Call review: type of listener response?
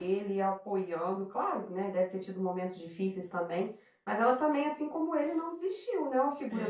taking over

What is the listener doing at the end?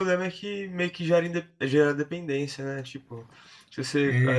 listening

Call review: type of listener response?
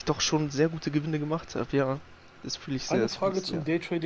taking over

